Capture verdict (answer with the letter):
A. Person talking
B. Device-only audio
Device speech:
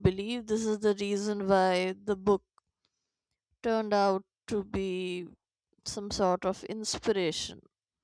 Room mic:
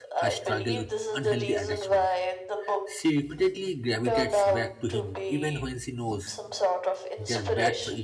A